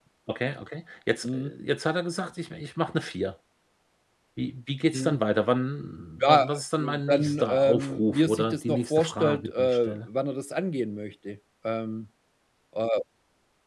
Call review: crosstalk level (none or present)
present